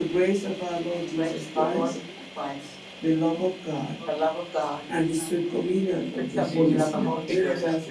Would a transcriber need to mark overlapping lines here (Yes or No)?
Yes